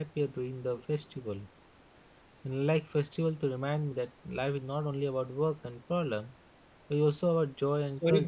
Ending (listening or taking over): taking over